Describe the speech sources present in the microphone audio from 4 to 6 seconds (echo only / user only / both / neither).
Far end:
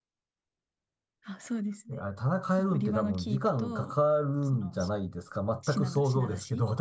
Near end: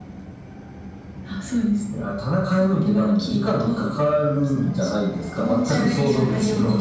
both